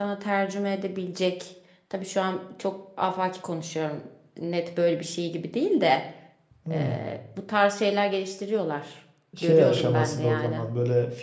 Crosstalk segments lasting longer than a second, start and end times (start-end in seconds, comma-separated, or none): 9.4-10.7